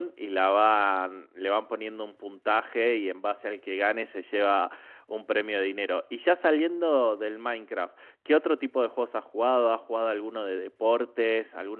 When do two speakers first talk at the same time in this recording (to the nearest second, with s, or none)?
none